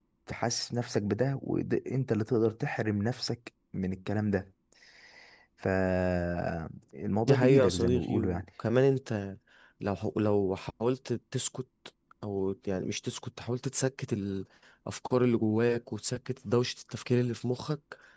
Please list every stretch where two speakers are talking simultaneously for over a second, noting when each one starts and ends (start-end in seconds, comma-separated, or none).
7.2-8.4